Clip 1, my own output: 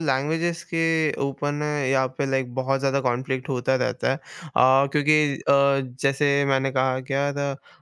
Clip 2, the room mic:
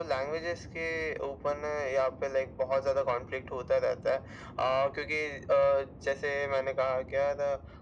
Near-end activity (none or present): none